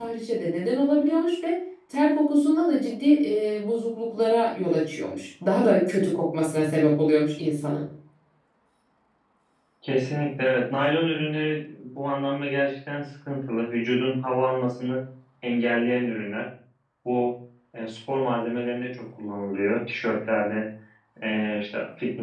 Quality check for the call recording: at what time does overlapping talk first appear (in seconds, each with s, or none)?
none